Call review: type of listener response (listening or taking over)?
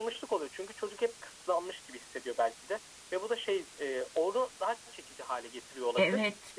taking over